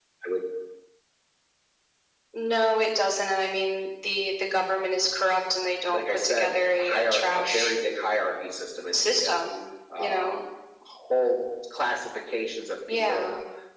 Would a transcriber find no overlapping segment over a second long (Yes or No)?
No